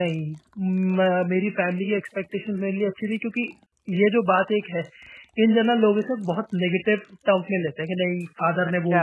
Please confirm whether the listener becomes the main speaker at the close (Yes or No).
Yes